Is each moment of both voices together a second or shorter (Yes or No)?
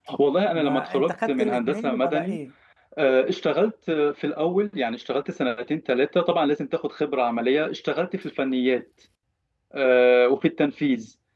No